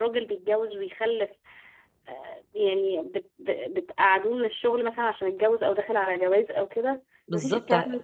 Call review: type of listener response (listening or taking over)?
taking over